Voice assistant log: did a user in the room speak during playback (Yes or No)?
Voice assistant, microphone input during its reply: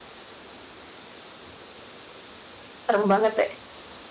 Yes